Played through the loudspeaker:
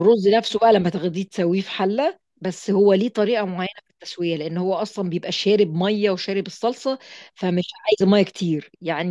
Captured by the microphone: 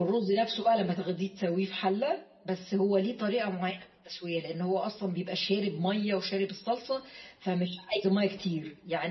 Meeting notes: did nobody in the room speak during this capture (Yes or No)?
Yes